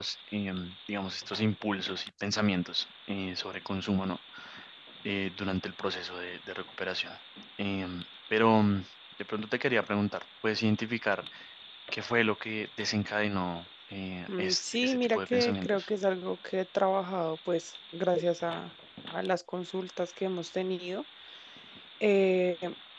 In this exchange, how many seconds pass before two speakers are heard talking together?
14.3 s

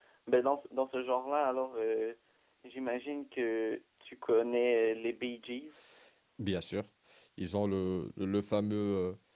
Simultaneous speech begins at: none

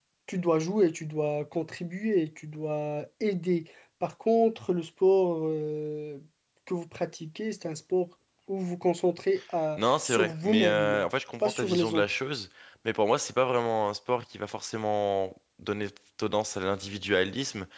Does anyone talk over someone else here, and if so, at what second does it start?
9.8 s

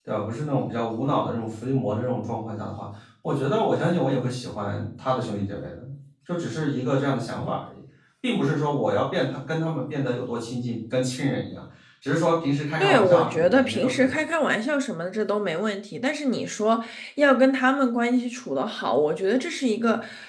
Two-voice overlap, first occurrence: 12.8 s

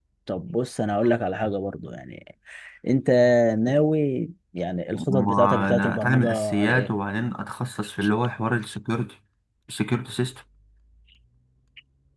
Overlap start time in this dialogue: 4.9 s

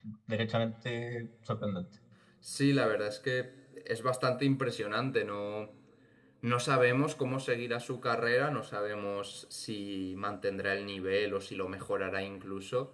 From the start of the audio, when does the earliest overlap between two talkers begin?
none

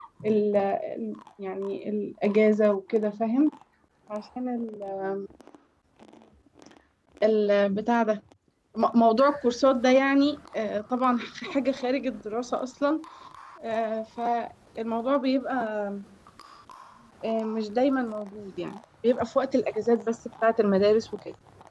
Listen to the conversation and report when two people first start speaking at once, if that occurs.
none

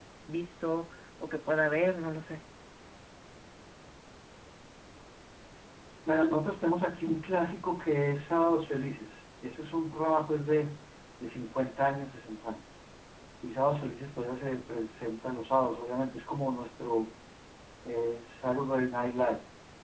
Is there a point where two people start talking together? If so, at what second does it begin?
none

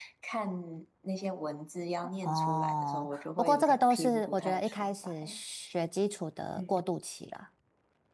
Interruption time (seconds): 2.2 s

